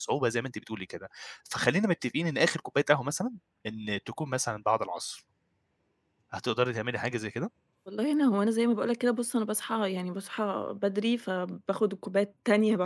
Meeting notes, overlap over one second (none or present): none